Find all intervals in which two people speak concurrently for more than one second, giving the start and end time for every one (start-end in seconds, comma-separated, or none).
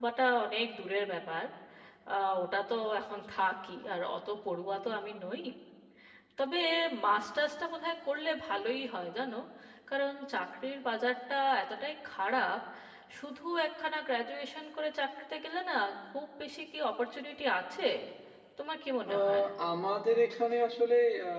none